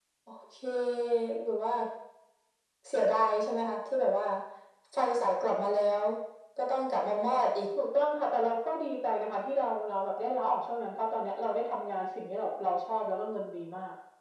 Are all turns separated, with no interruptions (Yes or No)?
Yes